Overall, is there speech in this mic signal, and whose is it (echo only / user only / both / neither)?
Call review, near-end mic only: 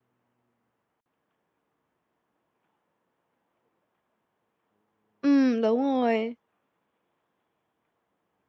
user only